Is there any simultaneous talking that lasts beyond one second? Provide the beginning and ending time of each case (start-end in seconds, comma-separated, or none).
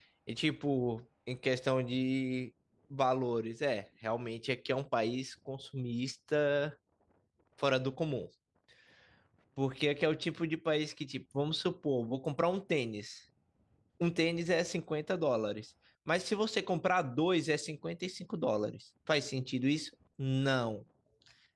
none